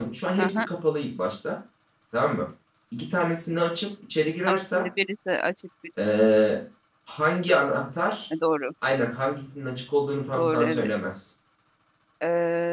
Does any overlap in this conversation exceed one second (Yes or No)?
No